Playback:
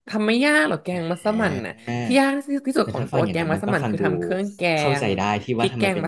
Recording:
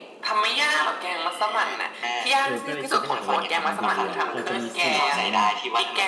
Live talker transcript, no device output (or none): เออก็เลยคิดว่าอยากจะลองทำดูอ่ะพอจะมีสูตรไหมอ่ะ